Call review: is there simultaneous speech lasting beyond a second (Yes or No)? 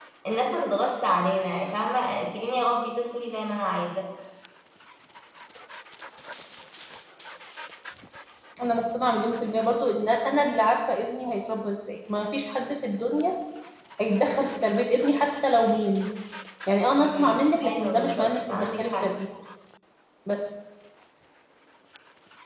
Yes